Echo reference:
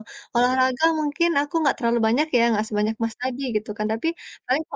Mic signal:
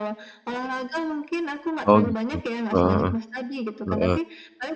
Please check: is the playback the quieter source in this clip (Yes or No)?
Yes